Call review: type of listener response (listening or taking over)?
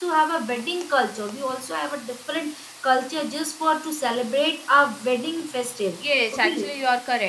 taking over